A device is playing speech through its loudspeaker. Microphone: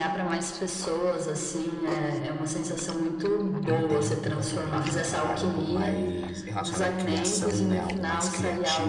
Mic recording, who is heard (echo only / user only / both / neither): both